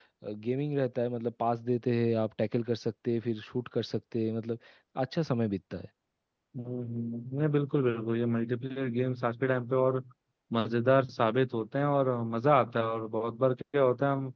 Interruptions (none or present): none